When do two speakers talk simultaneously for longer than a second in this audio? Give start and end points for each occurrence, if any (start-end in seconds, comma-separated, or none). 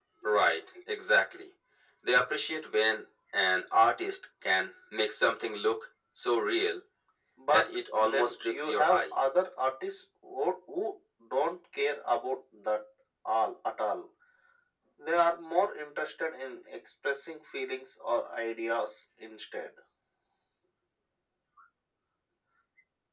7.5-9.0